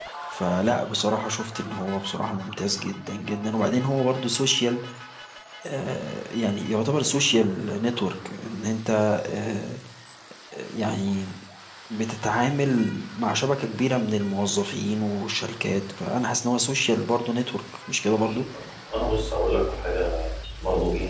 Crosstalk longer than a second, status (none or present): none